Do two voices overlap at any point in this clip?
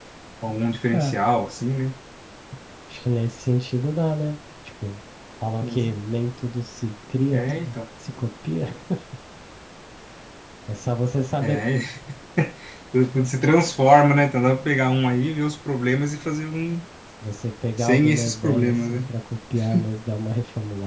Yes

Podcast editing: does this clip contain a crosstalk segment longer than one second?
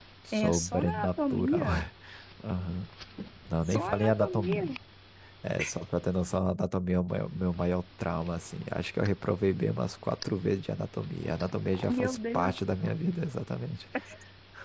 Yes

